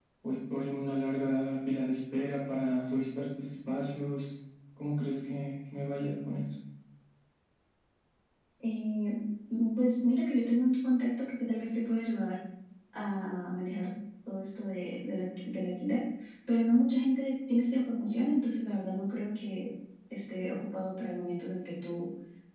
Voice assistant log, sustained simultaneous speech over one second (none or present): none